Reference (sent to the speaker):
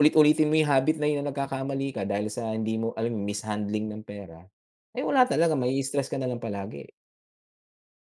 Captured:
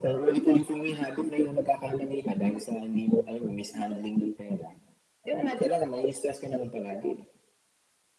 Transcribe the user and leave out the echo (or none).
none